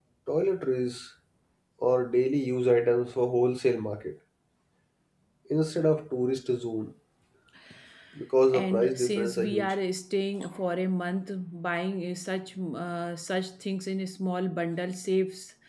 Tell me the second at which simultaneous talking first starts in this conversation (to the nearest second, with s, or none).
8 s